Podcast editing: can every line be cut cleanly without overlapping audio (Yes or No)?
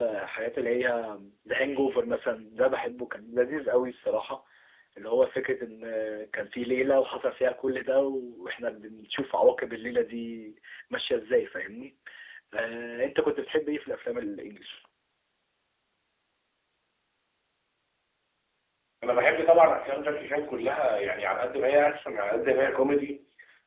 Yes